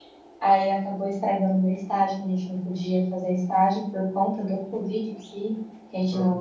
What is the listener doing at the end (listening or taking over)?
listening